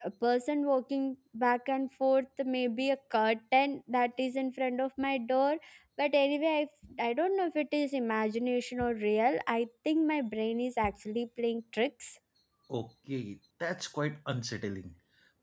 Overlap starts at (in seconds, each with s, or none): none